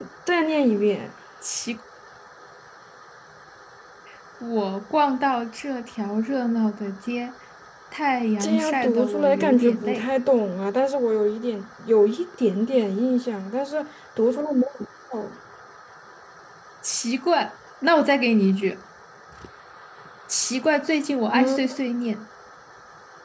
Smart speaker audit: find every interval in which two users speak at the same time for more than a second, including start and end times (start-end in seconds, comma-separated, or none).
8.4-10.0